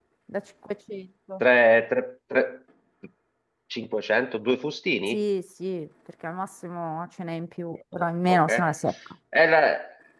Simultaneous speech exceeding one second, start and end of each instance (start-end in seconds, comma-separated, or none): none